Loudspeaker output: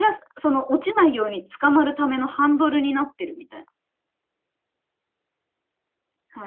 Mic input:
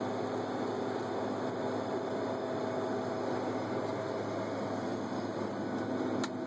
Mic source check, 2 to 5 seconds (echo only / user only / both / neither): neither